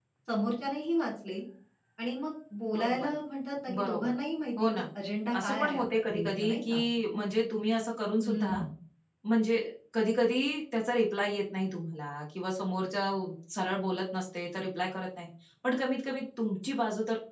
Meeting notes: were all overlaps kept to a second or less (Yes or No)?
No